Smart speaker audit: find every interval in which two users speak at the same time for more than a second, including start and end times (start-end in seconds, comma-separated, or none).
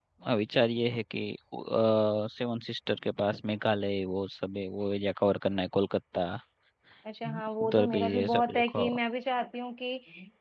7.2-8.9